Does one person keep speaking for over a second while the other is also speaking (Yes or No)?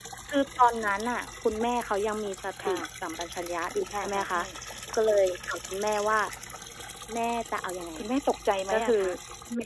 No